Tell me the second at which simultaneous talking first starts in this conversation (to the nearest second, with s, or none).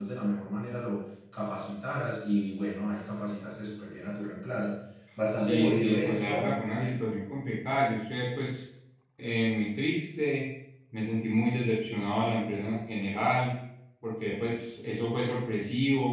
5 s